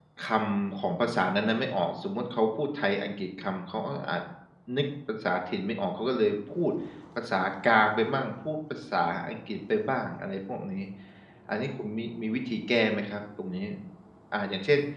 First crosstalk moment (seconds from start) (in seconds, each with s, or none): none